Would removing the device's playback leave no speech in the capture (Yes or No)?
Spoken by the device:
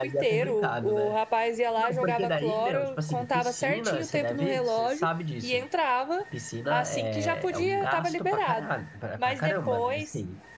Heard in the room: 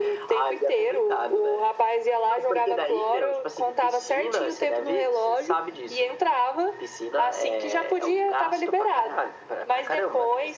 Yes